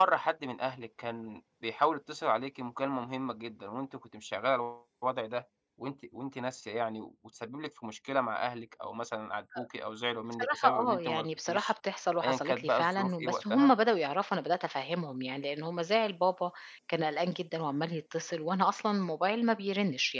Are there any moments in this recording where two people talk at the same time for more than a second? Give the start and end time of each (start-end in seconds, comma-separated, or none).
10.3-11.7, 12.2-13.7